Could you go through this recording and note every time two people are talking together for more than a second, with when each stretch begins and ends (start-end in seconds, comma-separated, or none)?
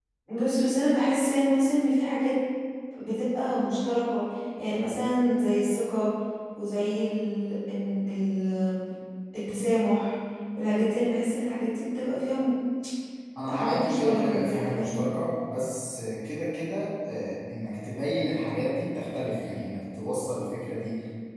13.5-15.0